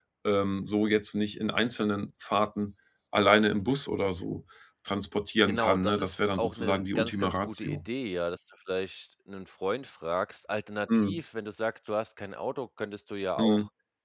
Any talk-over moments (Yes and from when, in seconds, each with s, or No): Yes, from 5.5 s